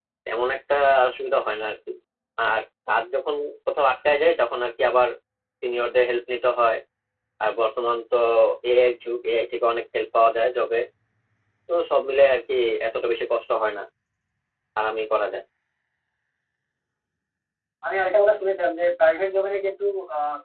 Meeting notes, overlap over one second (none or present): none